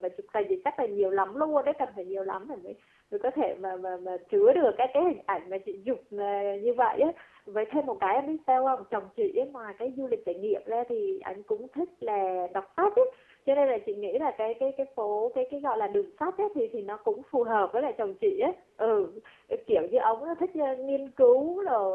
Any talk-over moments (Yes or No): No